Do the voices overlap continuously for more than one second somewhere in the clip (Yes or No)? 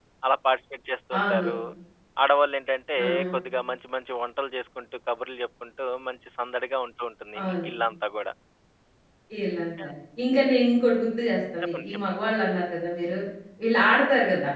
No